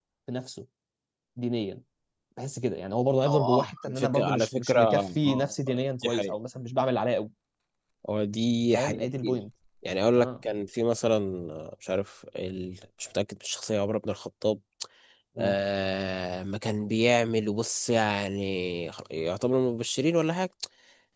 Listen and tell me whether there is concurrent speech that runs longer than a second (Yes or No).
Yes